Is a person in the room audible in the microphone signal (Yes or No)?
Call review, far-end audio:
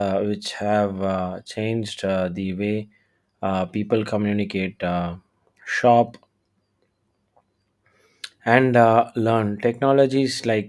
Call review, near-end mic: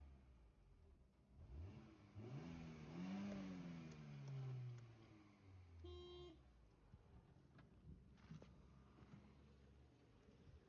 No